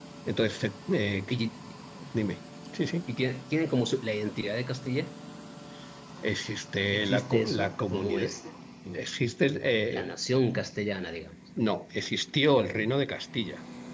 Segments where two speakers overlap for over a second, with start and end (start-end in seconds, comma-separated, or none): 6.9-8.3